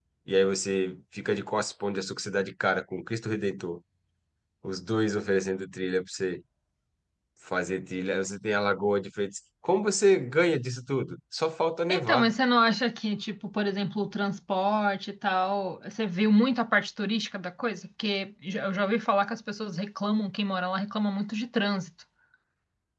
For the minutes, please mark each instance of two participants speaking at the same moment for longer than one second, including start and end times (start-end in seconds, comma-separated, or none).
none